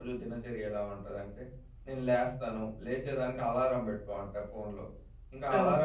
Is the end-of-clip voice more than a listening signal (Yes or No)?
No